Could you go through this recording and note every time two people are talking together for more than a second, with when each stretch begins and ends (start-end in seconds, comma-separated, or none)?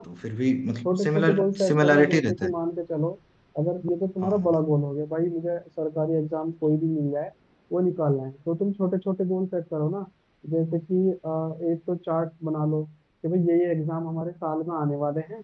0.9-2.5